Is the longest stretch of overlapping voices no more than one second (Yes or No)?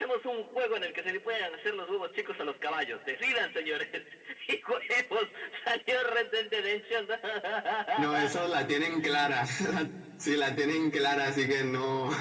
Yes